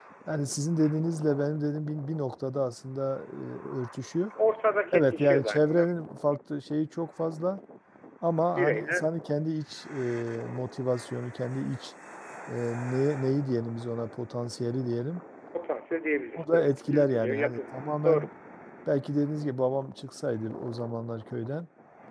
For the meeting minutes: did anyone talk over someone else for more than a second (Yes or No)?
Yes